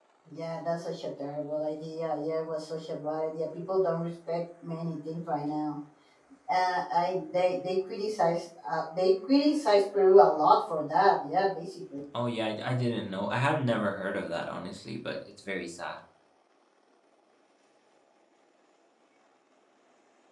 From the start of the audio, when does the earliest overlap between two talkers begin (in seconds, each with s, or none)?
none